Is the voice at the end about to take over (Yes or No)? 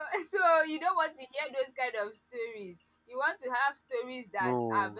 No